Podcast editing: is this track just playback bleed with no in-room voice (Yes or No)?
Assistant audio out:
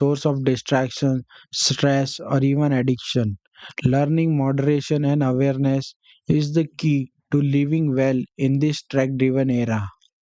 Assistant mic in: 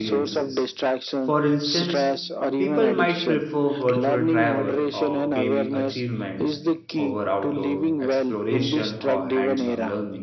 No